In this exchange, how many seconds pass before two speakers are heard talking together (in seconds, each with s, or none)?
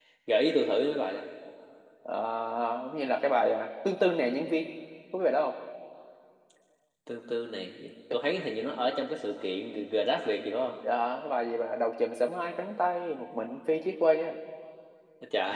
none